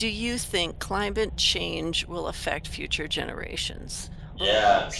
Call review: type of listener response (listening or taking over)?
taking over